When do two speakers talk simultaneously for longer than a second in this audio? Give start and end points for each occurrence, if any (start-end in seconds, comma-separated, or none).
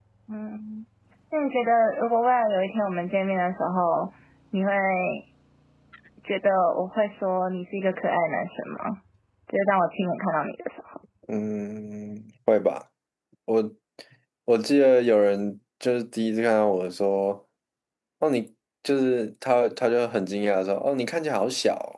none